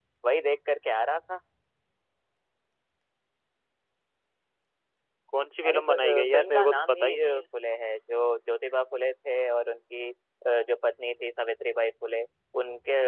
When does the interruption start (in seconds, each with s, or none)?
5.7 s